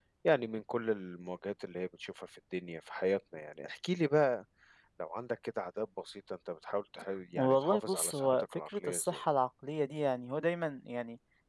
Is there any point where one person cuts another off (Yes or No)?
Yes